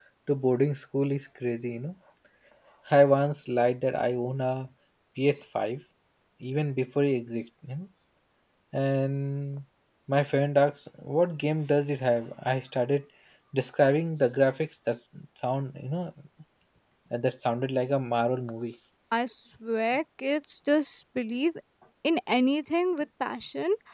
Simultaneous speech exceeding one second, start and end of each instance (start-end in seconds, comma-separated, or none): none